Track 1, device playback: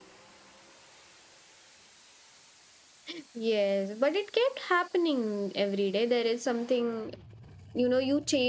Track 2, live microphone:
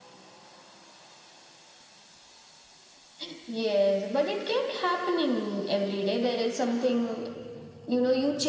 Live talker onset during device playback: none

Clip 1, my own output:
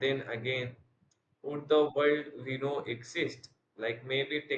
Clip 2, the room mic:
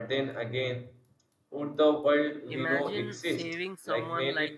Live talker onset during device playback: 3 s

